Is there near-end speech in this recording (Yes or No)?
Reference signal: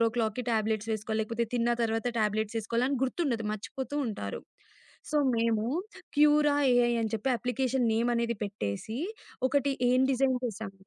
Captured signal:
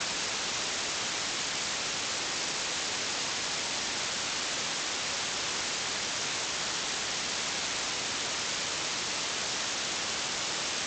No